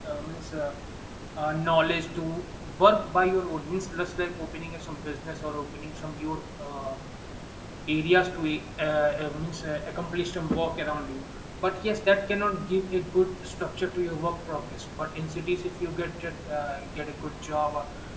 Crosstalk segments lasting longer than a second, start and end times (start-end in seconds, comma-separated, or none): none